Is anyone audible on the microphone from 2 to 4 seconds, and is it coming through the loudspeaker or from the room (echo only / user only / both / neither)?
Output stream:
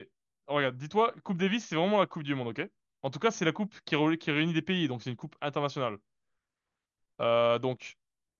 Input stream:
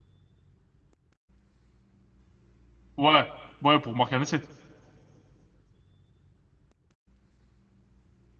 user only